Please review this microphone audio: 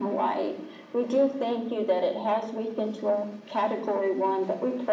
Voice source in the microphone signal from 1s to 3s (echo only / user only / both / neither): echo only